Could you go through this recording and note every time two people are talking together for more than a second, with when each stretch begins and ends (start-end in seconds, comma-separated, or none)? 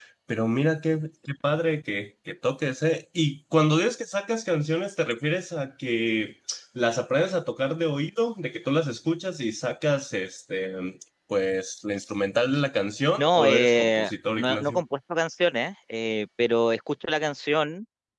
13.2-14.8